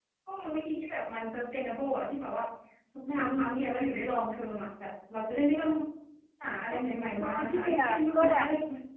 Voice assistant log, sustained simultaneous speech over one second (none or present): present